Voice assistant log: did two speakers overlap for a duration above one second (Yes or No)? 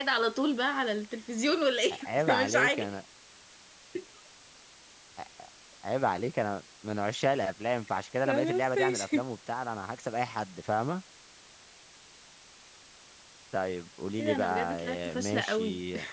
Yes